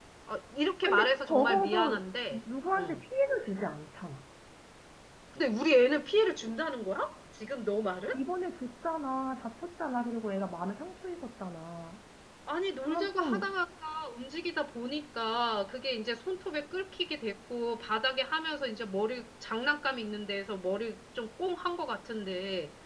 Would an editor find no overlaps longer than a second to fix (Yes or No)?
No